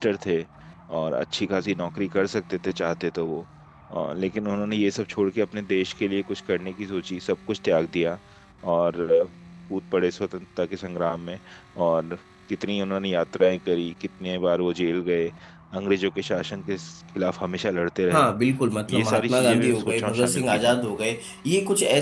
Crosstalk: present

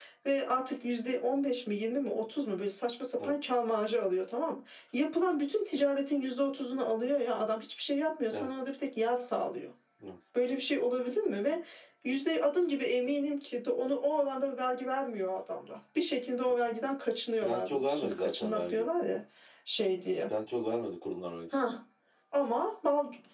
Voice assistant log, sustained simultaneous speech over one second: present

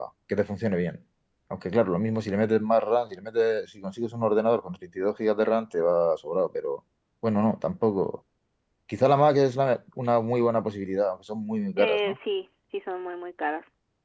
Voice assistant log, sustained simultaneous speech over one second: none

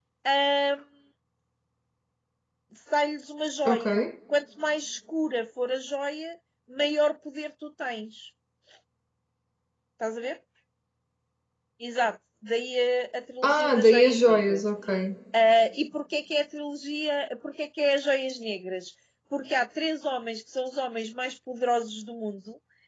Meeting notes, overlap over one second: present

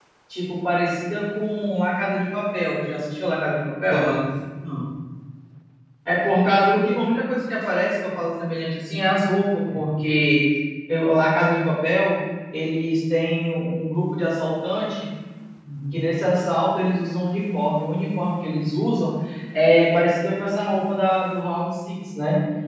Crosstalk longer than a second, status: none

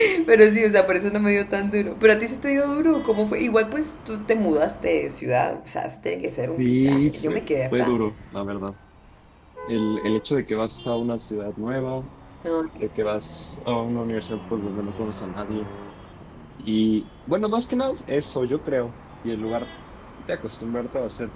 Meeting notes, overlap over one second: present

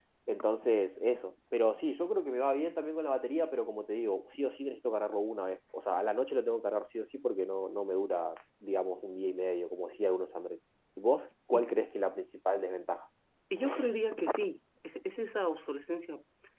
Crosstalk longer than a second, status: none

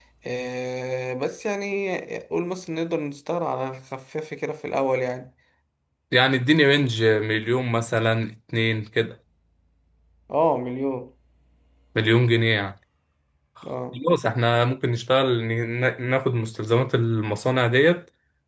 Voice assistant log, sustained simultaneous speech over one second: none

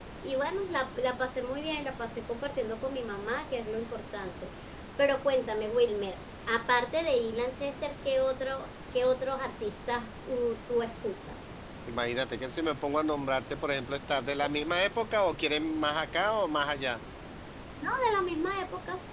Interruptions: none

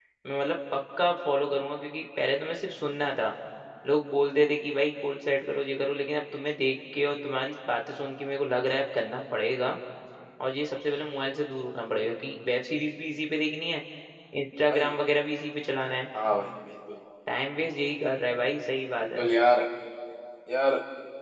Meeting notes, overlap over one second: none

